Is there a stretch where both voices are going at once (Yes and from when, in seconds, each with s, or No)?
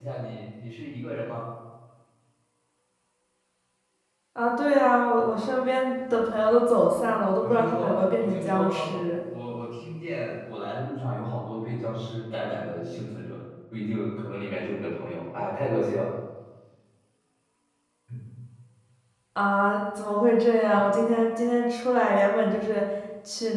Yes, from 7.4 s